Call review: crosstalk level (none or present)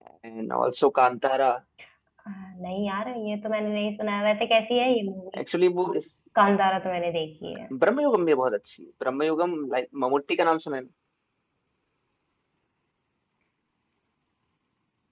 none